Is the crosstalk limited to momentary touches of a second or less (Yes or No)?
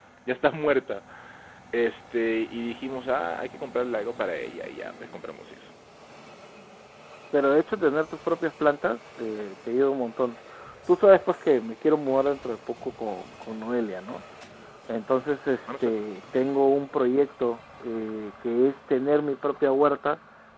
Yes